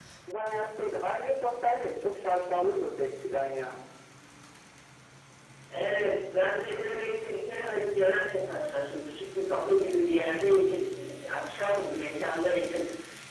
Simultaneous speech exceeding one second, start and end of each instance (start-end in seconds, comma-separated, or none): none